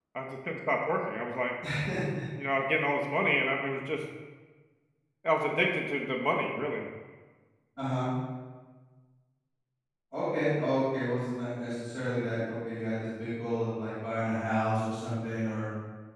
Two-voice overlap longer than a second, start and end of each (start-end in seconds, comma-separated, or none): none